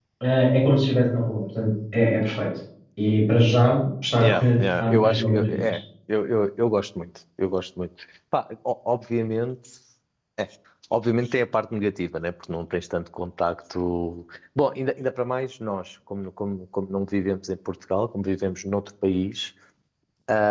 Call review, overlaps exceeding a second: present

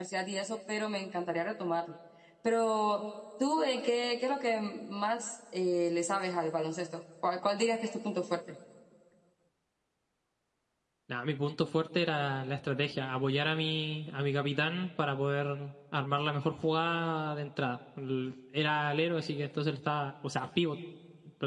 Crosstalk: none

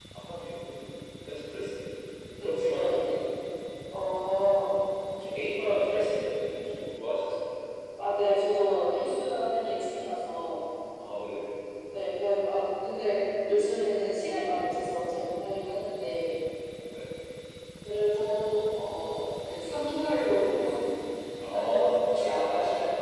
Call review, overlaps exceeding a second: present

